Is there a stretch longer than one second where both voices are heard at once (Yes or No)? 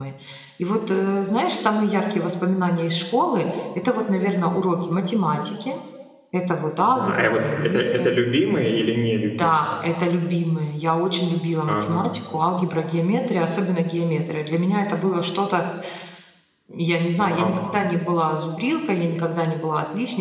Yes